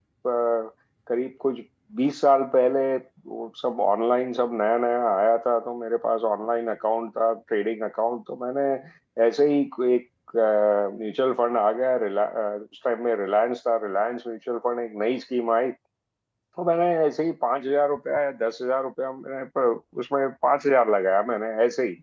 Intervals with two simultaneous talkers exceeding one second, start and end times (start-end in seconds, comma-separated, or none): none